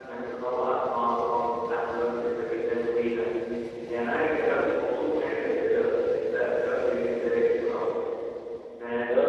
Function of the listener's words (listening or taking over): taking over